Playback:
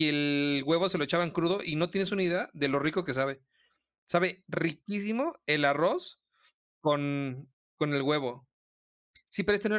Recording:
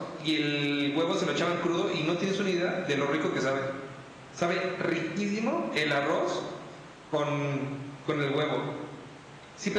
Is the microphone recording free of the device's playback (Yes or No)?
No